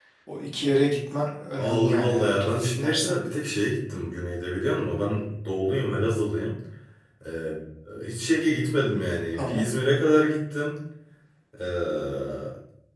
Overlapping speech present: Yes, from 1.6 s

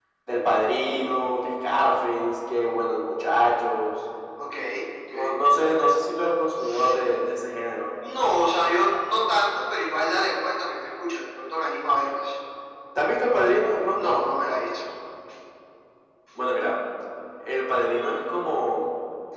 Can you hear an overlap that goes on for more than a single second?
No

